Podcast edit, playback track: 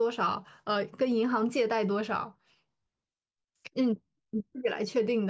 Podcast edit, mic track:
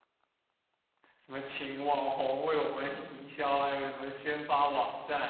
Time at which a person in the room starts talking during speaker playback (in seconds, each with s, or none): 1.2 s